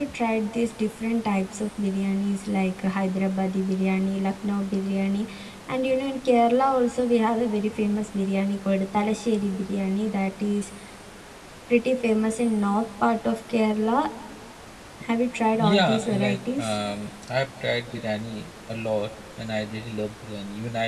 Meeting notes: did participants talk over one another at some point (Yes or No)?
Yes